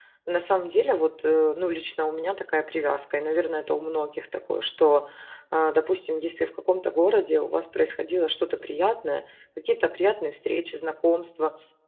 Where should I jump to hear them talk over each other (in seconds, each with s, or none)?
none